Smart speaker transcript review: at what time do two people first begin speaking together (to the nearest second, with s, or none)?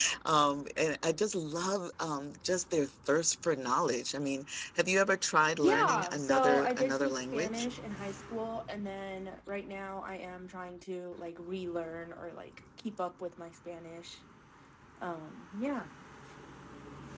6 s